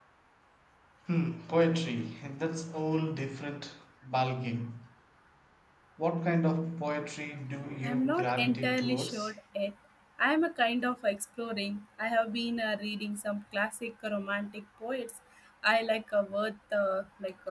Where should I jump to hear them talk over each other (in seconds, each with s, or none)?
7.8 s